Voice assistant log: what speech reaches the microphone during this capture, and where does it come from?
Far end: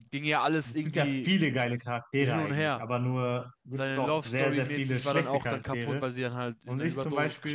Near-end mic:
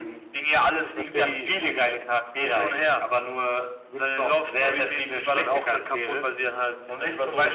both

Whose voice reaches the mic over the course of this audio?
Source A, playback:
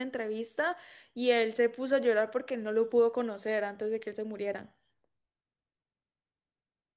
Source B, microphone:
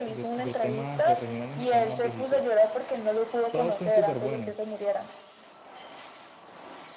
both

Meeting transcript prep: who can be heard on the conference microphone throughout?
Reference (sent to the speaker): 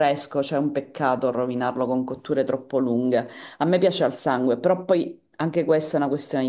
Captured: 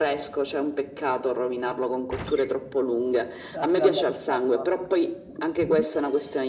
both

